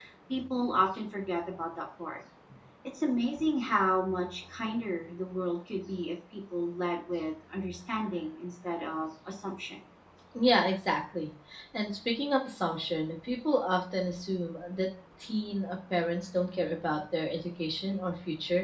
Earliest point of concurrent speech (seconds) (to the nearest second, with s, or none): none